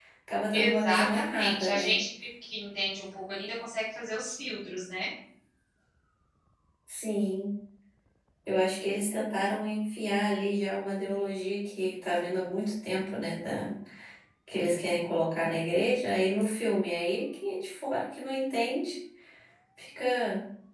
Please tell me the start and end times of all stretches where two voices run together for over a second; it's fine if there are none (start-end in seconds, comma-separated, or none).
0.5-2.0